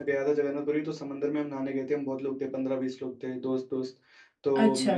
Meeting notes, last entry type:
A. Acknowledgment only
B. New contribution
A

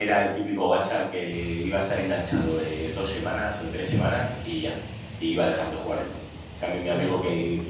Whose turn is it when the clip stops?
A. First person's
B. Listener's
A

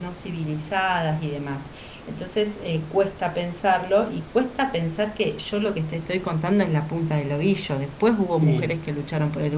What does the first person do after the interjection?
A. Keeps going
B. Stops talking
A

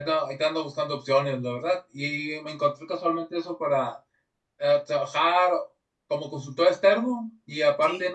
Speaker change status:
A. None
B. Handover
A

